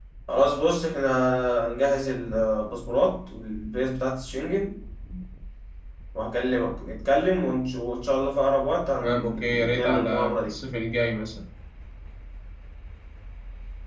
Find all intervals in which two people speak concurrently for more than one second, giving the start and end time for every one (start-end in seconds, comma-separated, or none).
9.0-10.5